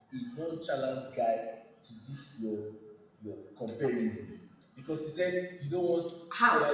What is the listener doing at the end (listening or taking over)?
listening